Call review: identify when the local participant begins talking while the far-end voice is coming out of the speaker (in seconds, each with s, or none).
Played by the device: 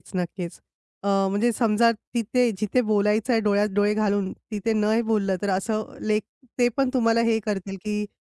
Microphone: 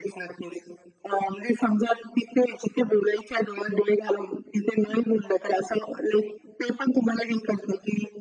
none